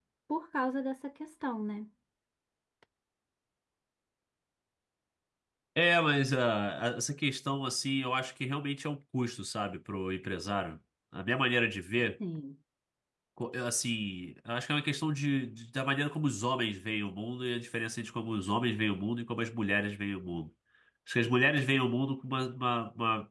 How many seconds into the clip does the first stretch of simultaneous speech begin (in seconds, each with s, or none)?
none